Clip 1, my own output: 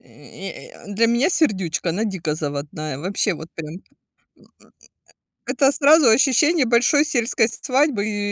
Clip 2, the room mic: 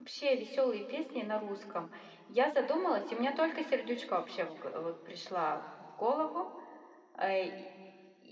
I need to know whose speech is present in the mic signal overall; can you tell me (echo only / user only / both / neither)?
user only